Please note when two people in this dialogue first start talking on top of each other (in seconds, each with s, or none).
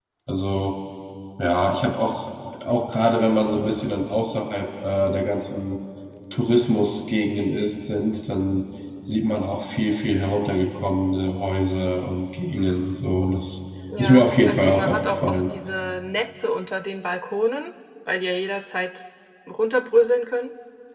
13.9 s